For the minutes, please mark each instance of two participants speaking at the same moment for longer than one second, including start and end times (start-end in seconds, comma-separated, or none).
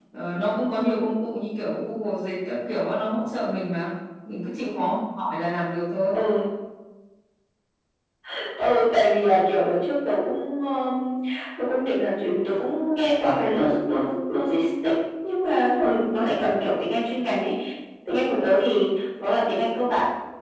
none